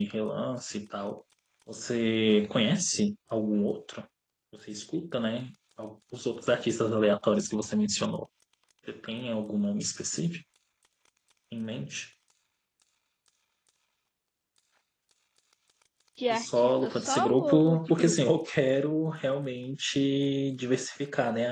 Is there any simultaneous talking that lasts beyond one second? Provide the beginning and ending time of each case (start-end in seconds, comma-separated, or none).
16.3-18.1